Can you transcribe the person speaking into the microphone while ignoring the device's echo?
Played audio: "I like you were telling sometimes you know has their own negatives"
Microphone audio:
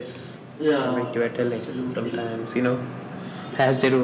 yeah a- absolutely

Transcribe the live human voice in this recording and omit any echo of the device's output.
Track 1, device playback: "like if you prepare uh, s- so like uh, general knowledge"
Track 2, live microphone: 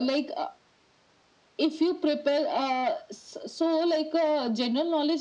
none

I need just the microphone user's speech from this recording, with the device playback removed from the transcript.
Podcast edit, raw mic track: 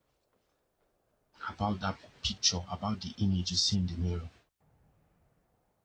about that picture, about the image you see in the mirror?

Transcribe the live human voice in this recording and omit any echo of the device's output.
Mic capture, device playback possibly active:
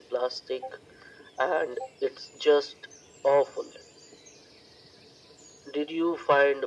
none

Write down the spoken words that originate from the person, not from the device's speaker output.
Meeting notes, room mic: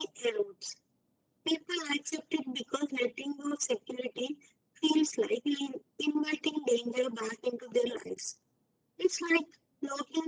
none

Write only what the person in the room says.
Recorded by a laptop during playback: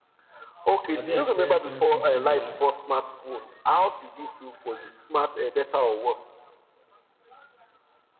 Have you experienced something similar?

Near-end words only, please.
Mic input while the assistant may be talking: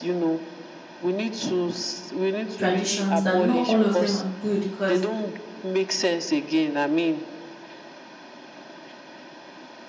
traditions that not all of them are good. Cause,

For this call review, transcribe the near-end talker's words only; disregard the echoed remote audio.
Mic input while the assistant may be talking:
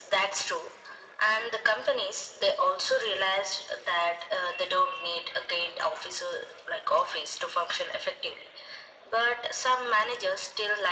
none

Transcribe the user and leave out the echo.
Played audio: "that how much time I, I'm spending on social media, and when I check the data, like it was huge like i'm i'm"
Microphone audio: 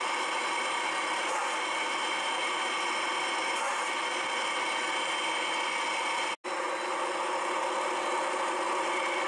none

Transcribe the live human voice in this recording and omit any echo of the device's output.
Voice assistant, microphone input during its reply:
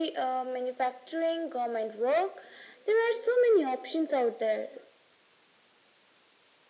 none

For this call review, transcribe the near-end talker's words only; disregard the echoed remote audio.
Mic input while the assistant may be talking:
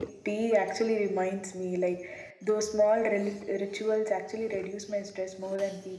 none

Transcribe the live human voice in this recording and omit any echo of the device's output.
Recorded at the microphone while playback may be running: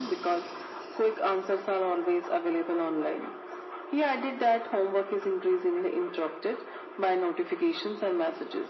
none

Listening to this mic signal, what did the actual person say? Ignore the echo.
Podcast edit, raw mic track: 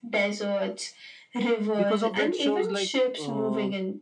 because of it shows like uh,

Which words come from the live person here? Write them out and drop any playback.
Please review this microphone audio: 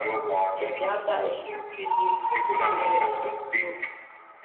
and they have that extreme trait, they really go to the extreme to

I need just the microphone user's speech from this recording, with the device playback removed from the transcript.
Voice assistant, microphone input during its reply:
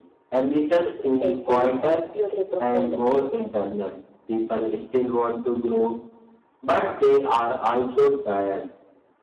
duplicative, or purely performative.

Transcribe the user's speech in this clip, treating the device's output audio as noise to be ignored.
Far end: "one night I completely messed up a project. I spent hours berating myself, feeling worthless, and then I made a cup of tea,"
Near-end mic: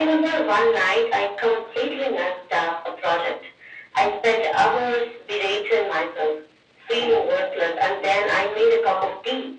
none

